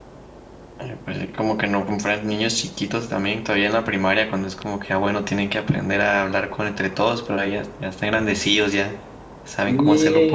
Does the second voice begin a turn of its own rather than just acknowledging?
Yes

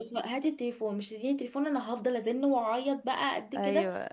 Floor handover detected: Yes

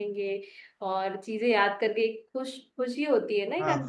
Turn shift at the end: Yes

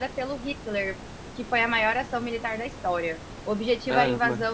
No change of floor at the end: Yes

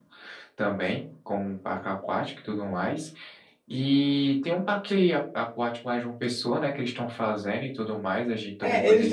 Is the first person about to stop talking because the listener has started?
Yes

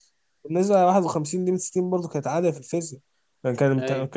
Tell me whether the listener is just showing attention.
Yes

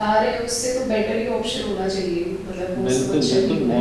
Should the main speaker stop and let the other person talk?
Yes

